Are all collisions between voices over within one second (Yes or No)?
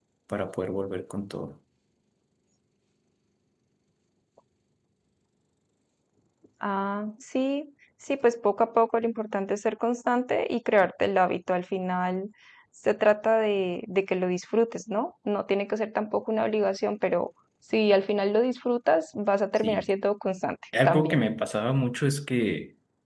Yes